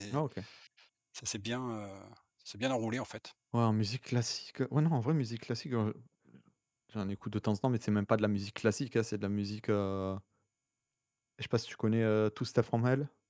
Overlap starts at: none

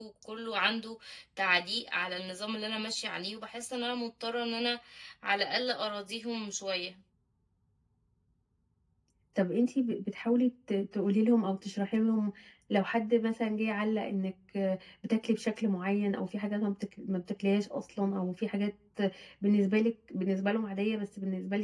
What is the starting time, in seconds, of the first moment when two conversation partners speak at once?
none

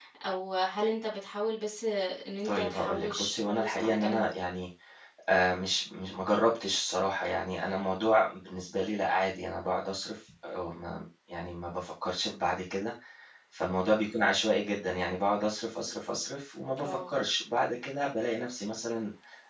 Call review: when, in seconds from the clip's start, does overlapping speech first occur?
2.4 s

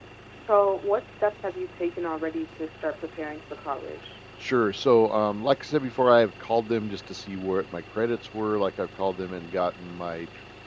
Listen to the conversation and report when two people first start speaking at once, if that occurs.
none

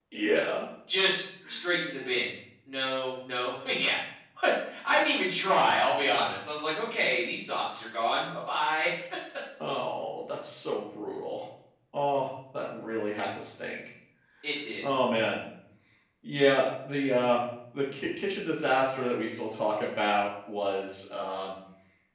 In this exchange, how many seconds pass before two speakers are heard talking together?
none

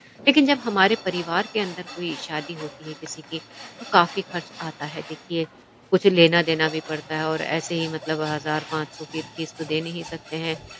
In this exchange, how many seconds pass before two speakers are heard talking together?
none

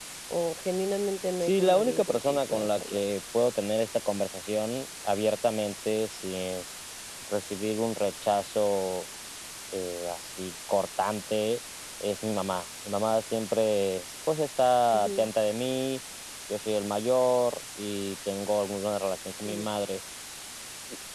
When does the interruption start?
1.4 s

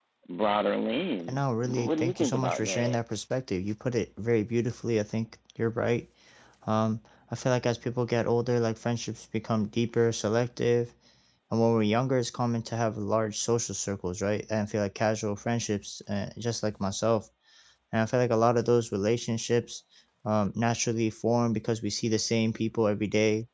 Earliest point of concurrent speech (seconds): 1.3 s

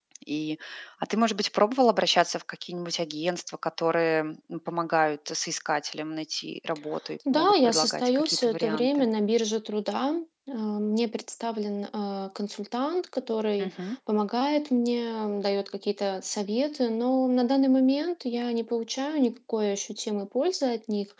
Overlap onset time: 7.3 s

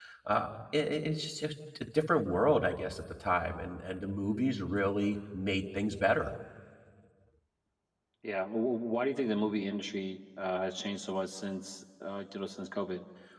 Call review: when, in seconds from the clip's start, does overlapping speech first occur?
none

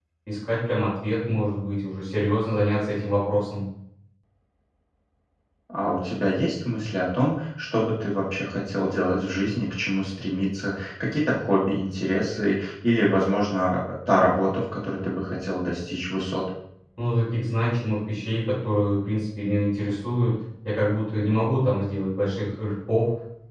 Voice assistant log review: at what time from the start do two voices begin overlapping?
none

